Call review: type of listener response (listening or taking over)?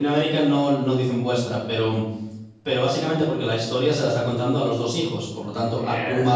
listening